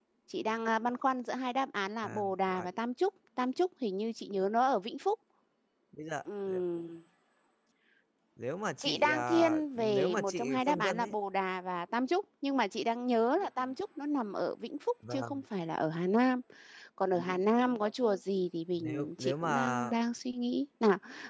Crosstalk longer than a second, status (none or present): present